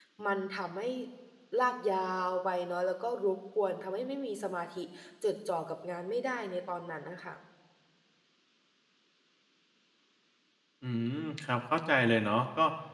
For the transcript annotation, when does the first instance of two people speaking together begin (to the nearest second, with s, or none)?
none